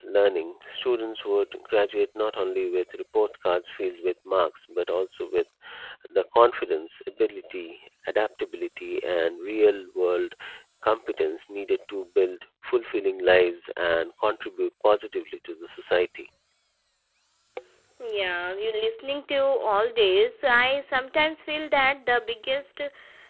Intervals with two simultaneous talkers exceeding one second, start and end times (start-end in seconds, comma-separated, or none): none